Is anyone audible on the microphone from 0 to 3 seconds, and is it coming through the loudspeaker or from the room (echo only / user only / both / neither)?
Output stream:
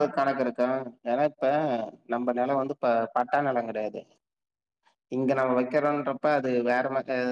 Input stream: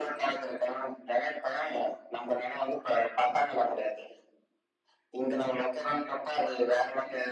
echo only